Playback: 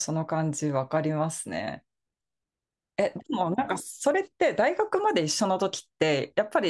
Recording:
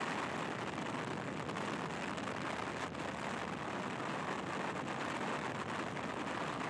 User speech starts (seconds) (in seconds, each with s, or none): none